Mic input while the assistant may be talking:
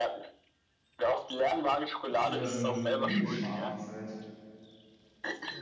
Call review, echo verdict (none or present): present